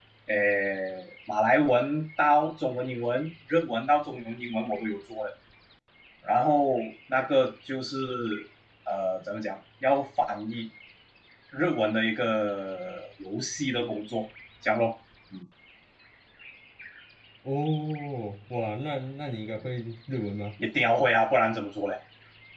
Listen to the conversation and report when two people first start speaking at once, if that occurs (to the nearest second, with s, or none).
none